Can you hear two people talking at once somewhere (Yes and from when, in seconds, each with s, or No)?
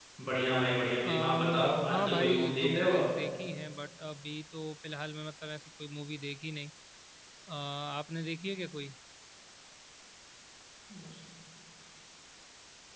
Yes, from 1.0 s